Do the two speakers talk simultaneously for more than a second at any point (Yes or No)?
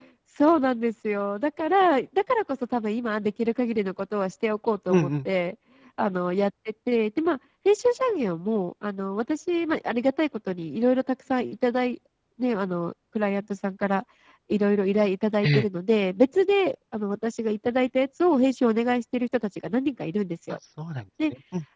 No